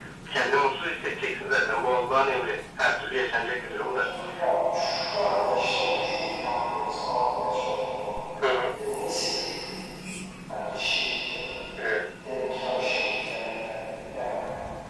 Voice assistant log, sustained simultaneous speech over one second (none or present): none